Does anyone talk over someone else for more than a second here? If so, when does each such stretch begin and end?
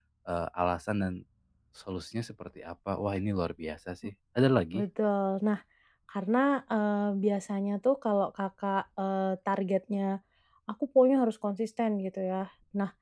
none

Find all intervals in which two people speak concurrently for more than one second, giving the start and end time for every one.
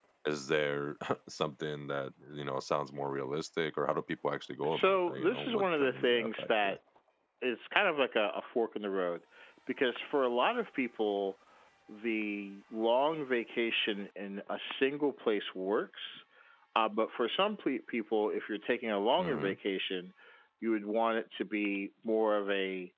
4.6-6.8

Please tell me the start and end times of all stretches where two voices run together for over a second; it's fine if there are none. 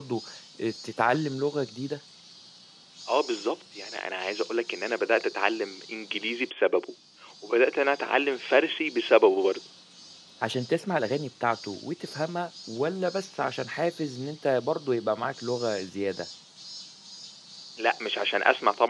none

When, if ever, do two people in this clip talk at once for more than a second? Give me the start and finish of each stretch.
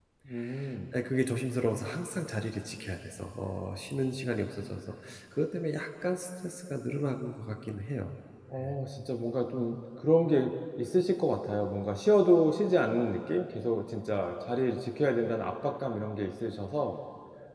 none

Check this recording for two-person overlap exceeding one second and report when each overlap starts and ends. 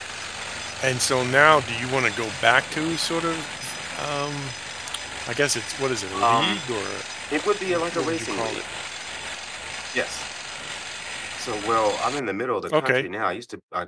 7.4-8.6

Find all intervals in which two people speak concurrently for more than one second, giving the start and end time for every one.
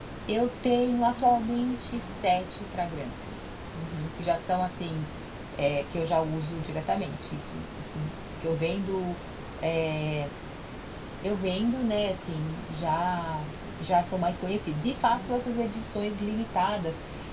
1.0-2.4

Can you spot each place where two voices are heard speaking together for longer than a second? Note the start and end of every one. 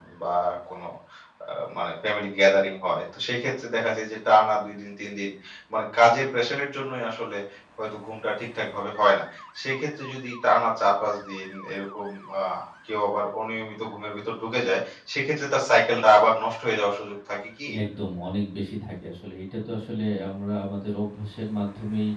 none

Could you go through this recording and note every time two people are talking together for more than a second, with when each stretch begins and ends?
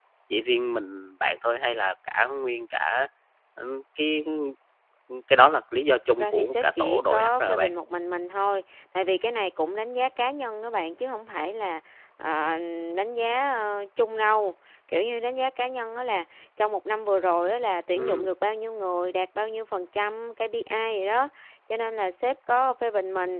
6.1-7.7

